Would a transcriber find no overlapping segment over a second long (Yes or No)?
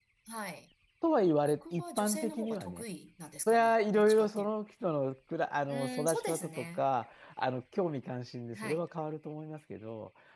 No